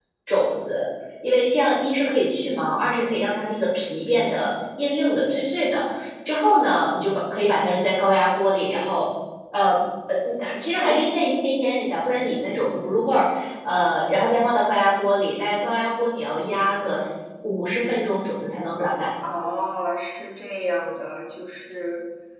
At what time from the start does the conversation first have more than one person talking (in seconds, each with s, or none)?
none